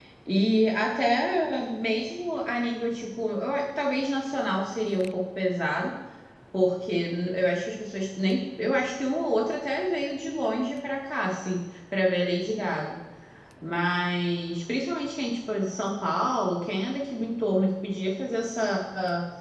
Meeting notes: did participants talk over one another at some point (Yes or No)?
No